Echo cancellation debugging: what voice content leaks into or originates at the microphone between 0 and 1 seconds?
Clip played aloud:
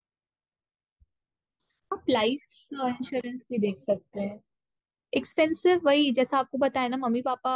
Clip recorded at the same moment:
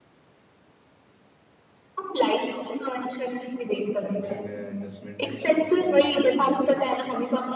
neither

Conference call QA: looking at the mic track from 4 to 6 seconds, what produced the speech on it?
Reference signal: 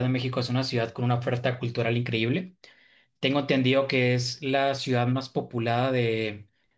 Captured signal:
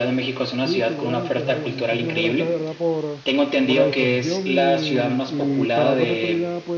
both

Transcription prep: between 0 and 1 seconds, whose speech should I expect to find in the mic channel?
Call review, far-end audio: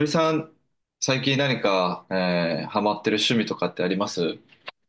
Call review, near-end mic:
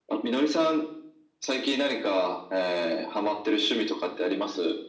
echo only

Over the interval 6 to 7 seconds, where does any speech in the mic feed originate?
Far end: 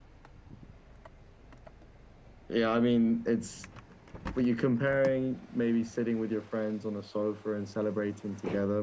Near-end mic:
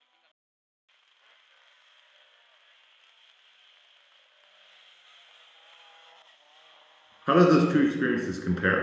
neither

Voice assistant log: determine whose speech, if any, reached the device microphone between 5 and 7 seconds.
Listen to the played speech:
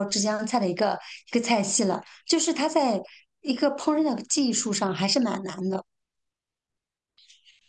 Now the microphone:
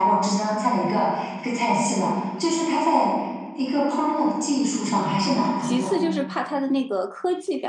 both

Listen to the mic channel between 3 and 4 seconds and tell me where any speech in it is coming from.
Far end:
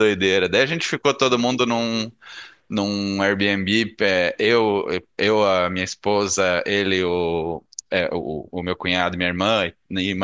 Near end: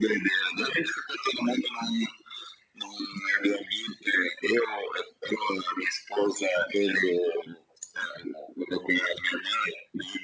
echo only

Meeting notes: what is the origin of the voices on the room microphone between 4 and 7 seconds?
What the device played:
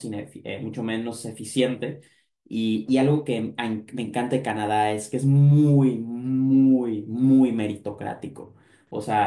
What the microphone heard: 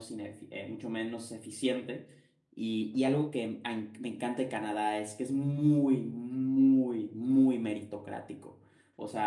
echo only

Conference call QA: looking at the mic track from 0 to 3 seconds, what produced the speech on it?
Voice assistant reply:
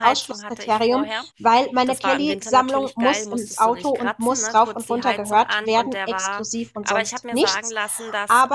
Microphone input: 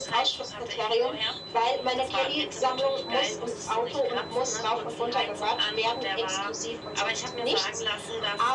echo only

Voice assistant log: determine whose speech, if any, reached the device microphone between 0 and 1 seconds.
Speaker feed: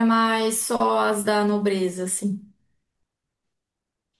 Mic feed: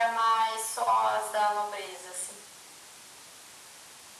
echo only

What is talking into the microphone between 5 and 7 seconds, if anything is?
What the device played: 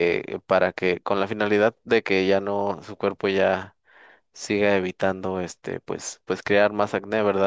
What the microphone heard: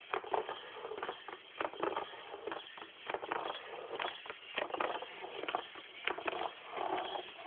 neither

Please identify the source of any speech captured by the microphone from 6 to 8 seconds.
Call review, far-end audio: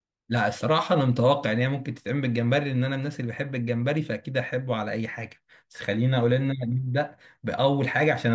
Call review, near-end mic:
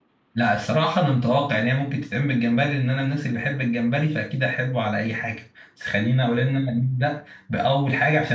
echo only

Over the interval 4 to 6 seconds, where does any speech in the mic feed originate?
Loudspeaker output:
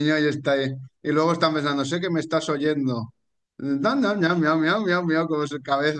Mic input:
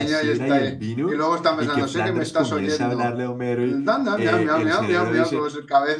both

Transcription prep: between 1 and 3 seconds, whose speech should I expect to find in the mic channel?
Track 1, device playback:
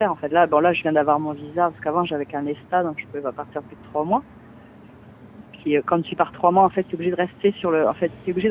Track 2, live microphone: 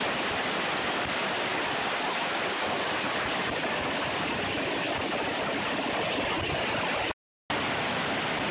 neither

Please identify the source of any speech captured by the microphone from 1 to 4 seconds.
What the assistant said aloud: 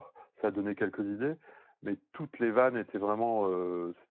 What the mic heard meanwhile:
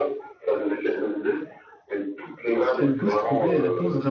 both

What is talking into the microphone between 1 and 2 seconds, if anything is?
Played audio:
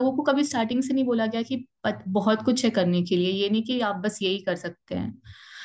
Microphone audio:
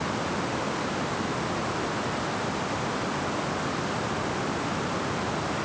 neither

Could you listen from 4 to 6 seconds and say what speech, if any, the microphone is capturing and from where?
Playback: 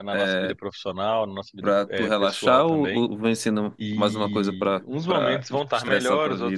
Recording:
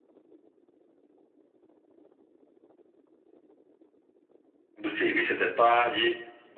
user only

